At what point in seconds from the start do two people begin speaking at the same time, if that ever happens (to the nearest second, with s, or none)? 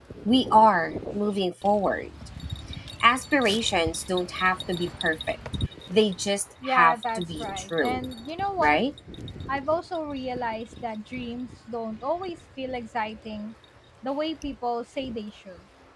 7 s